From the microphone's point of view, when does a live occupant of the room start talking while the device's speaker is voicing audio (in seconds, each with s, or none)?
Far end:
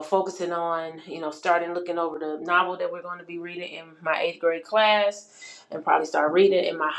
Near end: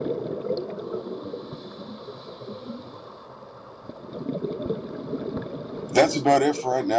5.9 s